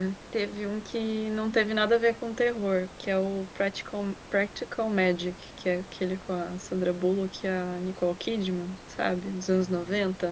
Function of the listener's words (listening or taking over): taking over